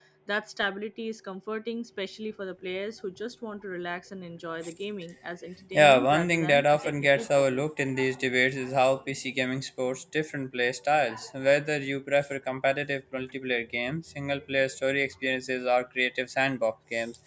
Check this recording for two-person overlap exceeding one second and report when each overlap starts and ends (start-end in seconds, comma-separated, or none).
5.7-7.7